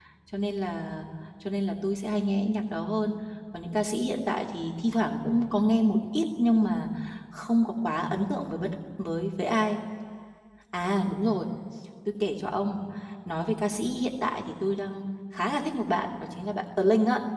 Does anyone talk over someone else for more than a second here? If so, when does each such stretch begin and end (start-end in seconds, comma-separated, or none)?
none